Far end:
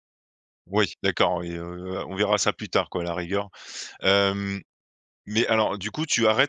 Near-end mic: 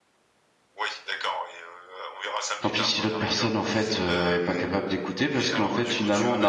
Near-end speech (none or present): present